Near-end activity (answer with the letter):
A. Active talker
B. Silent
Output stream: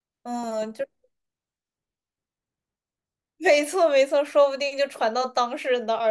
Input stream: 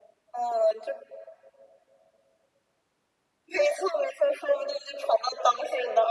B